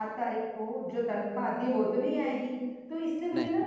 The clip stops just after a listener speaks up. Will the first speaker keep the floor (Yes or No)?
Yes